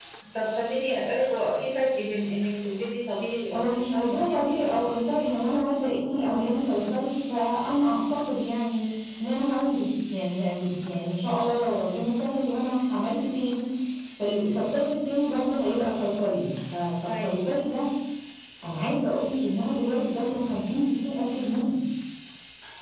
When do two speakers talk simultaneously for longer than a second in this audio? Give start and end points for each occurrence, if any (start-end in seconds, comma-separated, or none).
3.5-5.0